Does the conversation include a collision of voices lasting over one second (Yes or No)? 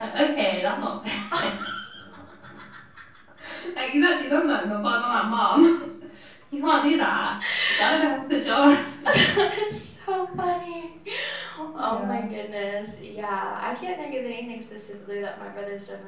No